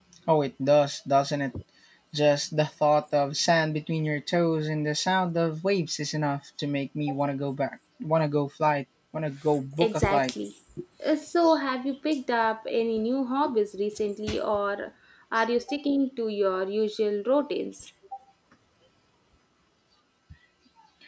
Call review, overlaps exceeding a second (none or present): none